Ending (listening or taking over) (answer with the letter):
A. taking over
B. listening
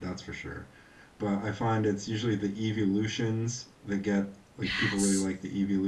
B